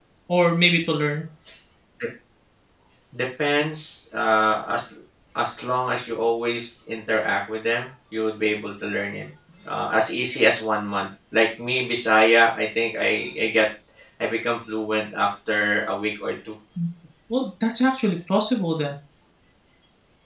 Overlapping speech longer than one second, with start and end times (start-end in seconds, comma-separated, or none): none